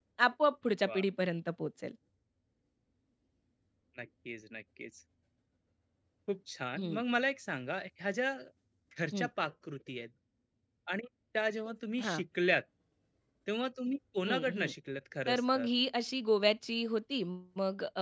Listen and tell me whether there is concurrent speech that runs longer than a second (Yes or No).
No